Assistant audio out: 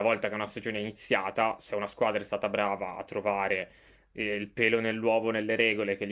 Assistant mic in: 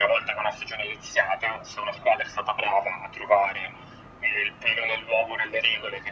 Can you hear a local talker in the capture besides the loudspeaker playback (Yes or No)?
No